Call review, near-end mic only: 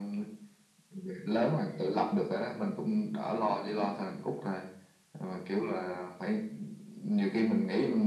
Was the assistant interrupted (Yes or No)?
No